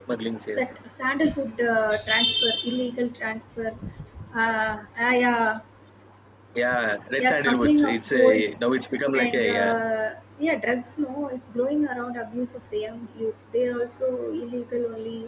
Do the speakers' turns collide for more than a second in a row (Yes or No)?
Yes